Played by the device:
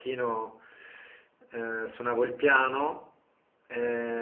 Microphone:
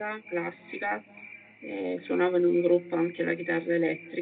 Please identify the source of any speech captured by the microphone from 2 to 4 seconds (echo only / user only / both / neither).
user only